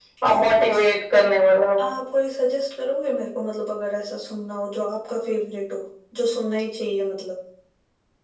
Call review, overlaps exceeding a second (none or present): none